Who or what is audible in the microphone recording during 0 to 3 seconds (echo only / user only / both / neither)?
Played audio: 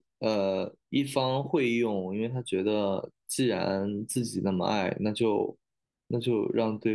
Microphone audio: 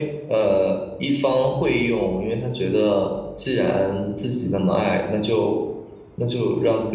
echo only